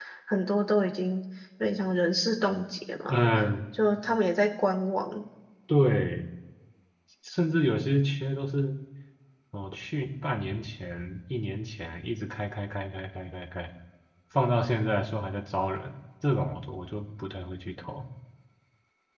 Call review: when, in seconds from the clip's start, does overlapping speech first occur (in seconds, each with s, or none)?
none